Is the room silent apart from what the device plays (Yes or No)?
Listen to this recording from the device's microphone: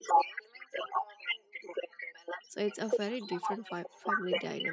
No